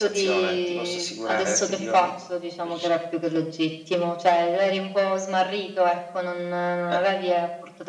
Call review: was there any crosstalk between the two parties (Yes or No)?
Yes